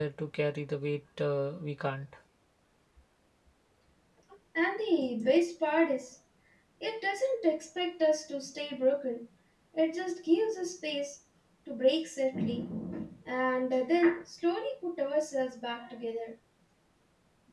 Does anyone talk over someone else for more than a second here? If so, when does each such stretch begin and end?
none

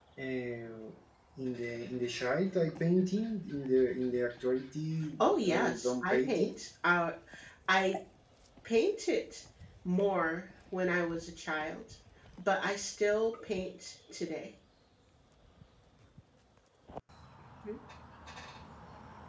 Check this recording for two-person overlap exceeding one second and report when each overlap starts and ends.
5.2-6.5

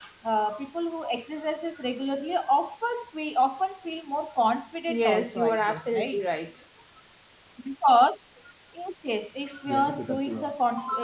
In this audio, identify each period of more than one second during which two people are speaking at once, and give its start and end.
4.9-6.2

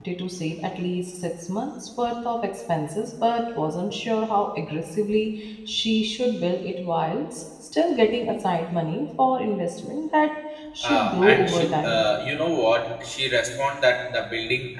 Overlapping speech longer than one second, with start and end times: 10.8-12.0

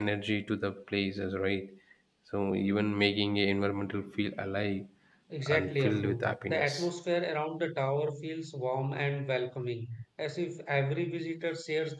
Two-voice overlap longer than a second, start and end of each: 5.5-6.9

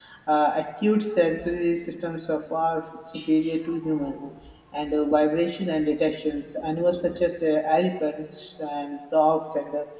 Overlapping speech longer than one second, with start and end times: none

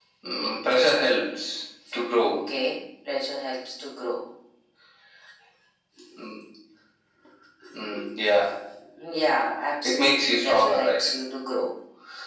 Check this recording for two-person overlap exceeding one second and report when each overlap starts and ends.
9.8-11.1

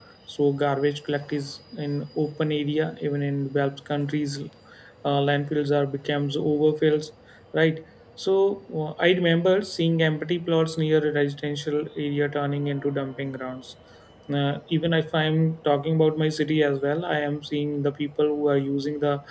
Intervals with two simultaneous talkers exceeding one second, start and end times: none

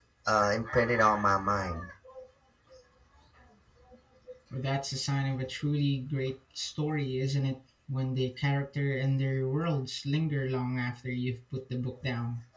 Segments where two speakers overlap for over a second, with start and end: none

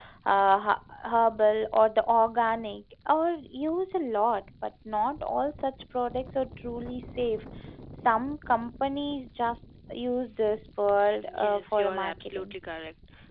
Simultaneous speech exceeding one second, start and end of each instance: 11.2-12.5

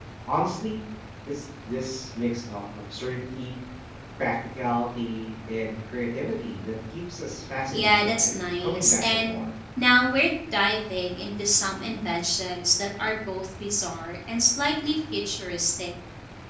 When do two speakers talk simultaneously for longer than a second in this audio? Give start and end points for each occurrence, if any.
7.7-9.4

